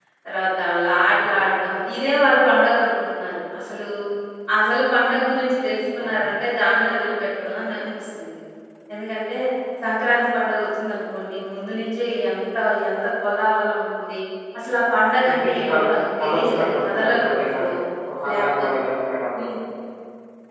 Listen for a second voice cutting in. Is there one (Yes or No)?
Yes